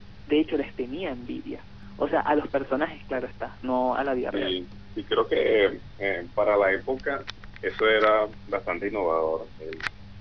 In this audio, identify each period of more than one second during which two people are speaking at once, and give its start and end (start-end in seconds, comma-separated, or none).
none